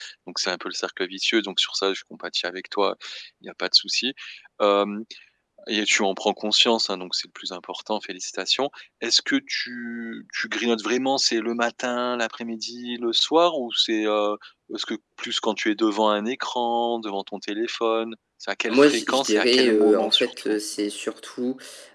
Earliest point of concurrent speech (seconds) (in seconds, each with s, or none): 18.7 s